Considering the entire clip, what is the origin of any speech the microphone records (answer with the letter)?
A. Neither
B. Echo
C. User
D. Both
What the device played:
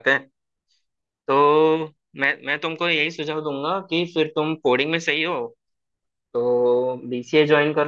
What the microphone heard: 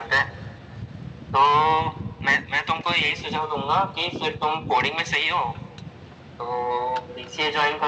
B